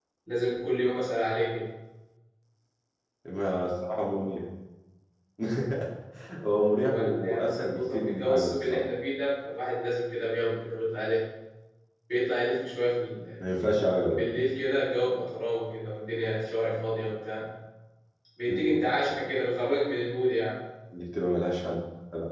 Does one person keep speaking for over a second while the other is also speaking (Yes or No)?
Yes